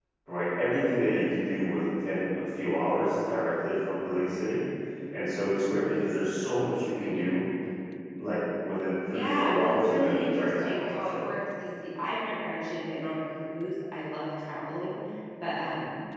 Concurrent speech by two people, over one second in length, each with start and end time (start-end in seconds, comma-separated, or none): 9.1-11.2